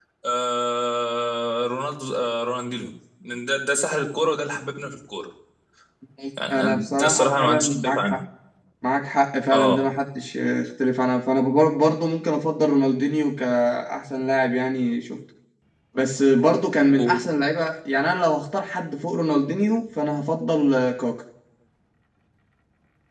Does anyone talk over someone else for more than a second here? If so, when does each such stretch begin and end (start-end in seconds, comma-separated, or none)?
6.5-8.2